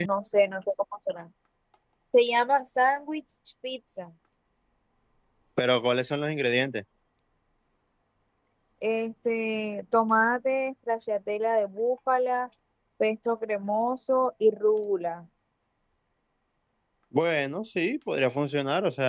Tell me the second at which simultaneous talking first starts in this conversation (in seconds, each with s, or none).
none